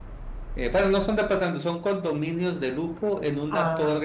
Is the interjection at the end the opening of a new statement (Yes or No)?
No